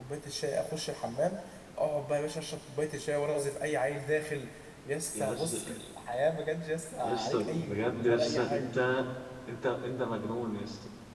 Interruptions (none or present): present